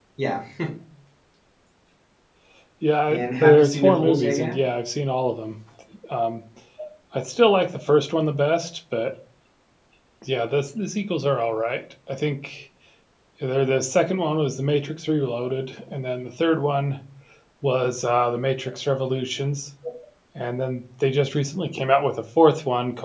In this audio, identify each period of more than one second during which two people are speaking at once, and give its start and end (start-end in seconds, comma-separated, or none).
3.1-4.6